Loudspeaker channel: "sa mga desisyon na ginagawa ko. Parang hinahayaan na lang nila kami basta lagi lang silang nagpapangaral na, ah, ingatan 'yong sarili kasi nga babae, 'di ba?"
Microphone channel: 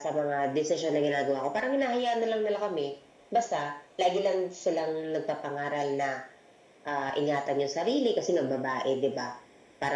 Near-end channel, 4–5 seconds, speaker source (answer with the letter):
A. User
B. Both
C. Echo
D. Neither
C